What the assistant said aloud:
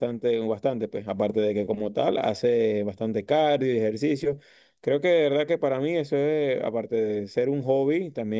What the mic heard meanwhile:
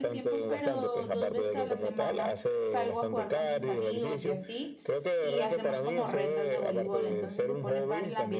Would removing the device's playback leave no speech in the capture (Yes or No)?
No